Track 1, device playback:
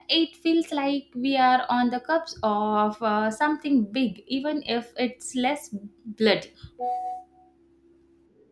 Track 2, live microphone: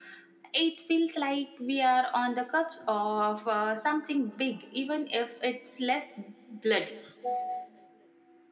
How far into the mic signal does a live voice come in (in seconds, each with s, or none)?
none